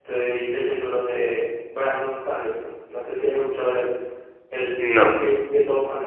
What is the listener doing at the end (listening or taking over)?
listening